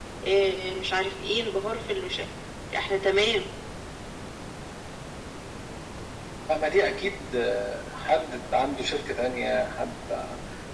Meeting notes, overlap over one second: none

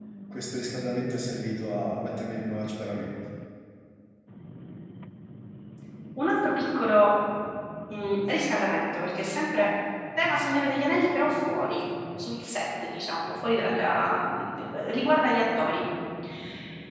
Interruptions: none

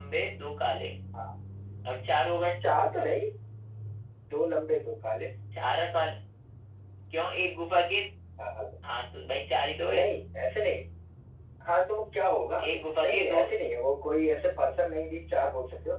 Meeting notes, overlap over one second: none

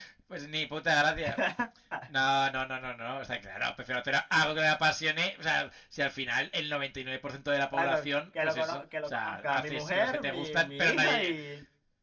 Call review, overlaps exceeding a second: present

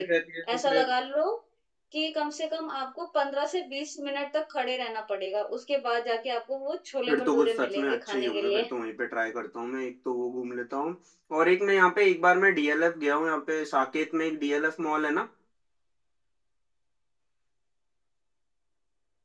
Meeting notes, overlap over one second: present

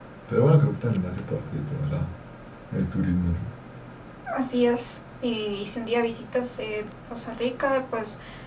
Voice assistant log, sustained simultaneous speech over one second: none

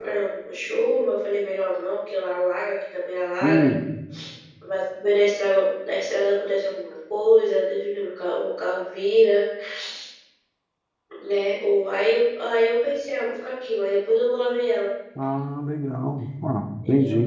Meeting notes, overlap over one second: none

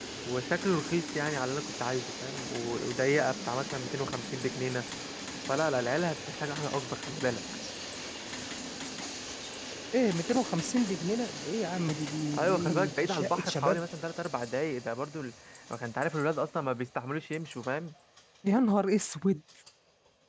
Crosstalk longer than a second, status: present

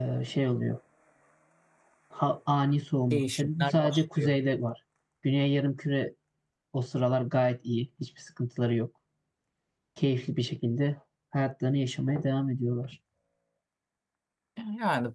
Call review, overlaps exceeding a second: present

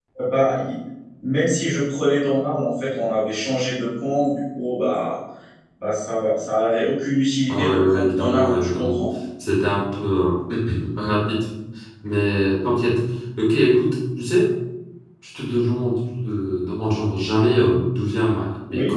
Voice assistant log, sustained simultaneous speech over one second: present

